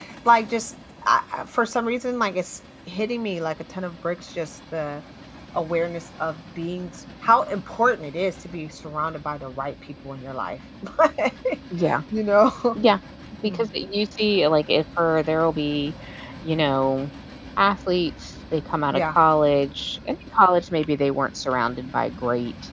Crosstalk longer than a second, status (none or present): none